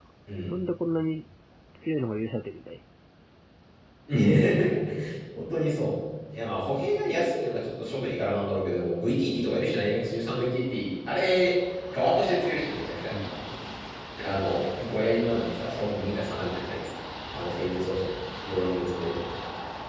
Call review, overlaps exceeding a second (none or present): none